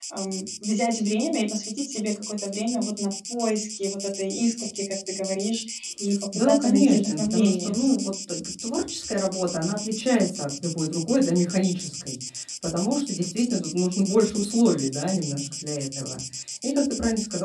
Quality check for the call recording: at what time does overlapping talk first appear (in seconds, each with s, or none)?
6.3 s